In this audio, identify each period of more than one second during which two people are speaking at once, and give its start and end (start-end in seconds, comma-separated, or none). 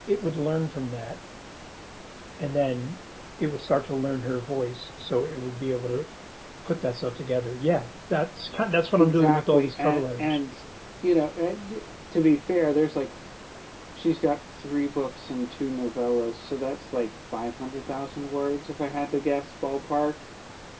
8.9-10.4